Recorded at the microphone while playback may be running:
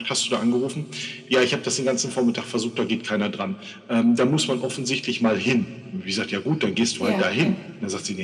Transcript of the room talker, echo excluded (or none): Ja, ja.